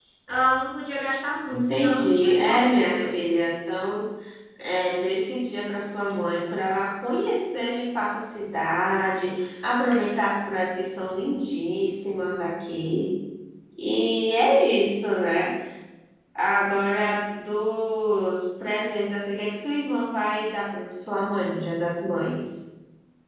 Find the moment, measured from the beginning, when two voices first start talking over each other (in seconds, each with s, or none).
1.5 s